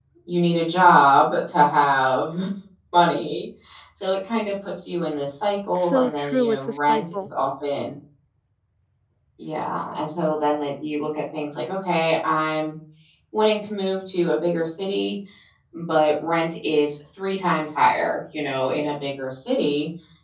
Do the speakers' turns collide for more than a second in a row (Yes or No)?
Yes